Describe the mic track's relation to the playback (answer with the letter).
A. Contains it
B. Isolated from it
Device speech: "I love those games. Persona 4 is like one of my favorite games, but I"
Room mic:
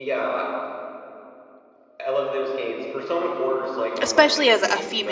A